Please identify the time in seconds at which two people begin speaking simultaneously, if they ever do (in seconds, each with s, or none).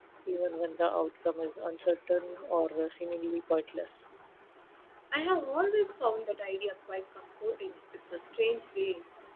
none